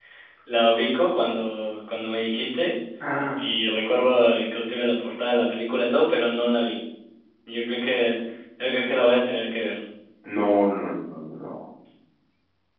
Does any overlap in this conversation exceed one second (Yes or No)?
No